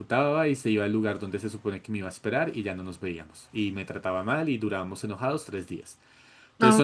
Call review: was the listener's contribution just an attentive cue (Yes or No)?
No